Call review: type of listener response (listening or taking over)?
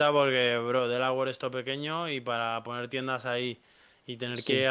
listening